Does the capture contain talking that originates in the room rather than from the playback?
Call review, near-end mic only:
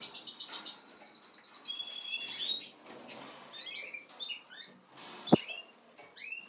No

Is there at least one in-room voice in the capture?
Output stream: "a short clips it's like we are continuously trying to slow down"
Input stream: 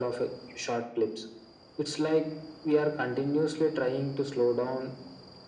No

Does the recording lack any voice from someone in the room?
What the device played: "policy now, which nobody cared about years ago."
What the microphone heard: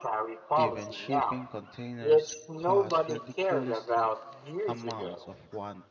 No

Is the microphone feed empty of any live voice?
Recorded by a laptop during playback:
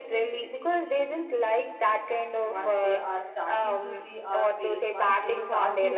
No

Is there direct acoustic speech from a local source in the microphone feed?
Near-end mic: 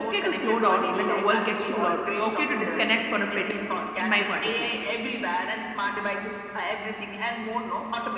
Yes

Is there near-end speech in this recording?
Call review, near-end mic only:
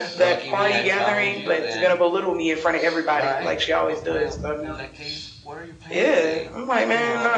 Yes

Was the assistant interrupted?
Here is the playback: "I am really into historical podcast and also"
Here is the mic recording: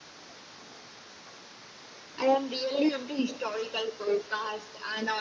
No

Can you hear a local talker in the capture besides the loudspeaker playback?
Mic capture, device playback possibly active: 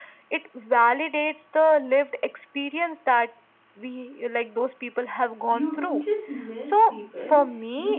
Yes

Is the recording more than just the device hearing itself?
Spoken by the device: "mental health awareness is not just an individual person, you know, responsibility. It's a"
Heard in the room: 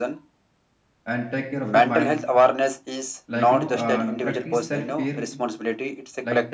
Yes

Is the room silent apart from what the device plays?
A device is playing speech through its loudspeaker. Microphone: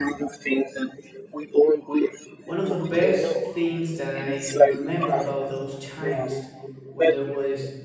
No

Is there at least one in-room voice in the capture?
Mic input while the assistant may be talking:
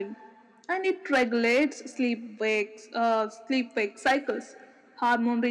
No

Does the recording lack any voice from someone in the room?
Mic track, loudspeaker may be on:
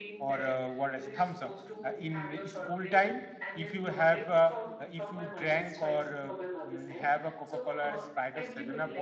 No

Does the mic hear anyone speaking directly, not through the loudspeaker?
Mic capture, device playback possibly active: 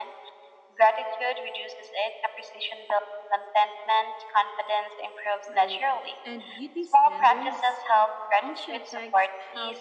Yes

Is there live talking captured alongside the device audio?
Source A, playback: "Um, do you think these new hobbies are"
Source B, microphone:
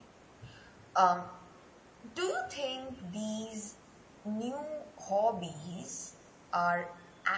No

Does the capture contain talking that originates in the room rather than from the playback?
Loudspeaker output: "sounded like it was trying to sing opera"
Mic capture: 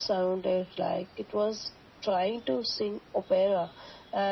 No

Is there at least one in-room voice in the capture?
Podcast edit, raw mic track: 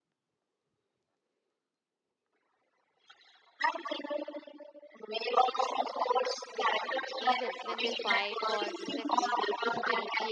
Yes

